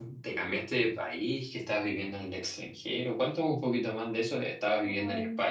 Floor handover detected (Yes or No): Yes